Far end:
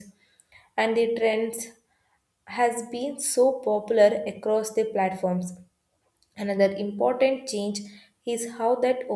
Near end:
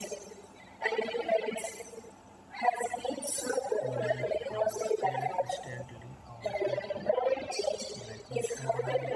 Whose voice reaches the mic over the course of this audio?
both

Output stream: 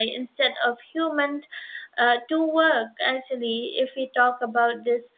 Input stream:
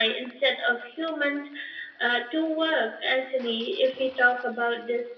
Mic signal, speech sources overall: echo only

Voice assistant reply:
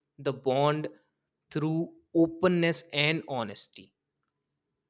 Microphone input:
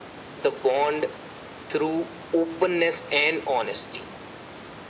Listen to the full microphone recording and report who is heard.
echo only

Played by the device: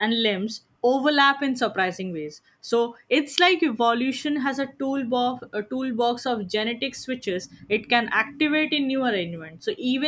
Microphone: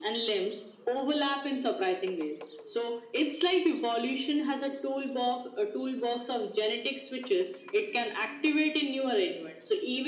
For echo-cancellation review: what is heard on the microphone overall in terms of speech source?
echo only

